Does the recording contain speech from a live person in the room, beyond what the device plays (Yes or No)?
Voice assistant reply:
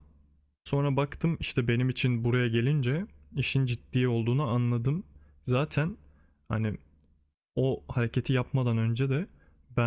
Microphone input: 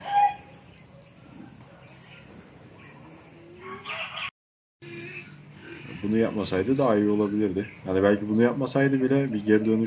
Yes